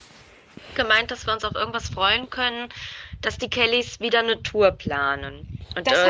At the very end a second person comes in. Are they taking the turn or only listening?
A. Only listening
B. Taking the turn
B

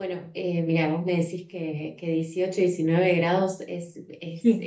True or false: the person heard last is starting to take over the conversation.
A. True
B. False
B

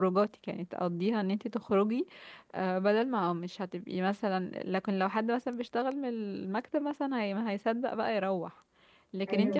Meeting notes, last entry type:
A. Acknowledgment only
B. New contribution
A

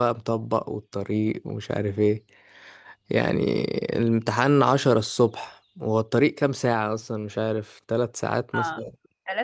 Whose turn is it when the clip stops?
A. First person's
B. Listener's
B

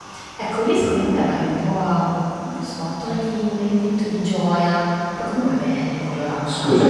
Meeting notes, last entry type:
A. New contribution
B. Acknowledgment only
A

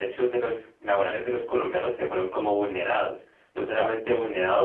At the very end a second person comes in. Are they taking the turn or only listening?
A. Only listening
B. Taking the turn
A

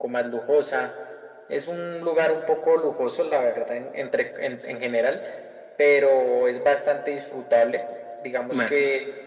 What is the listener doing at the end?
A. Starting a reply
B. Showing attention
B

